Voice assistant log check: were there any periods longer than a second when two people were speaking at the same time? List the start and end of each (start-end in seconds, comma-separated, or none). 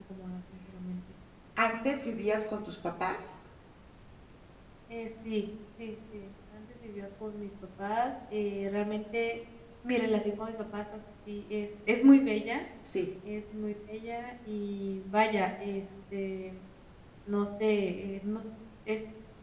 none